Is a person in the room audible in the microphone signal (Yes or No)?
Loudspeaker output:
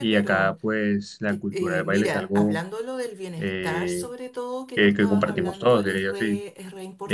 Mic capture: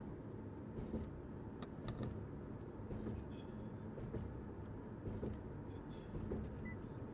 No